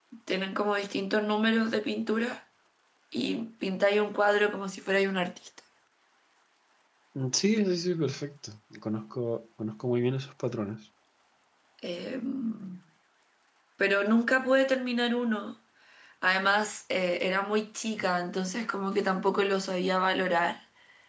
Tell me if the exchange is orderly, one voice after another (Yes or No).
Yes